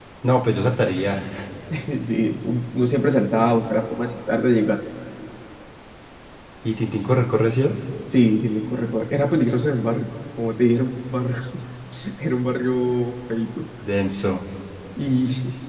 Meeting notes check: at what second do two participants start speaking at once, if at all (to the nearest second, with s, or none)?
none